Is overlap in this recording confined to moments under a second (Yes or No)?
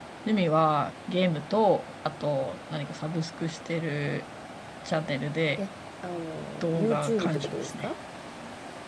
No